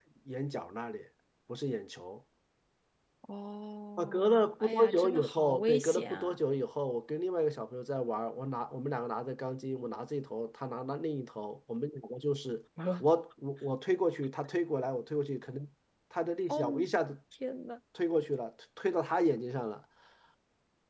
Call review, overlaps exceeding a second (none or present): present